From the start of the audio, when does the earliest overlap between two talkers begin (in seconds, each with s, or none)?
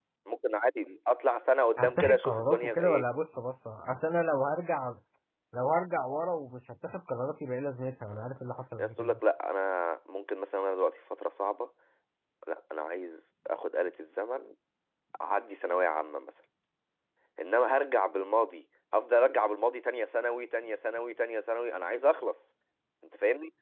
1.8 s